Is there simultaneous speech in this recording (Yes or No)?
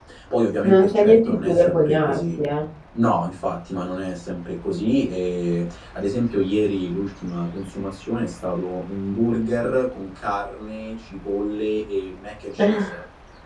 Yes